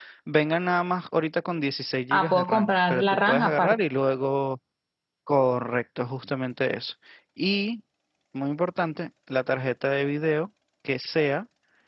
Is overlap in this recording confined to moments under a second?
No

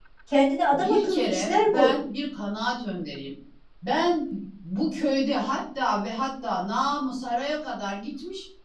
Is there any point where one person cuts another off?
Yes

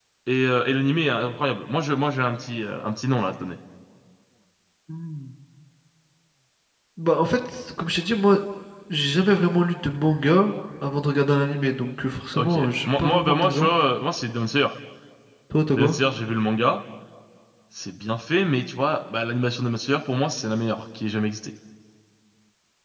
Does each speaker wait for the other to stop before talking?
No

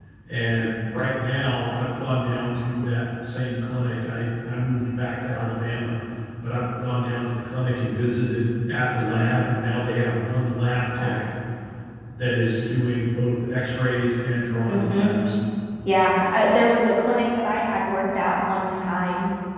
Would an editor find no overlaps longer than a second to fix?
Yes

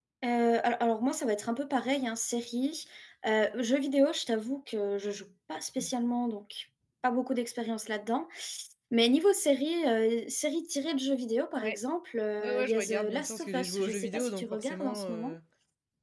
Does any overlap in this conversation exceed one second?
Yes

